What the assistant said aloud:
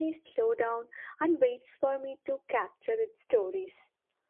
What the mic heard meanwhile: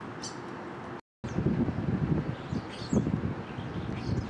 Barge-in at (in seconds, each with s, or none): none